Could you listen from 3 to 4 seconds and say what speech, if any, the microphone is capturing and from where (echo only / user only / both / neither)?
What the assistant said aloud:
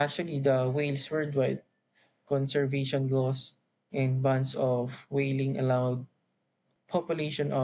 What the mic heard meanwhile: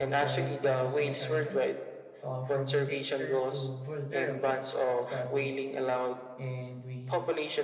both